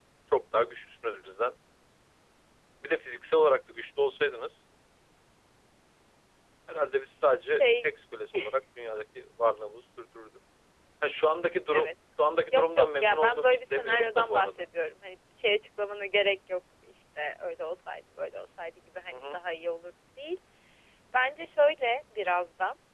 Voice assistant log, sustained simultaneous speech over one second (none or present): present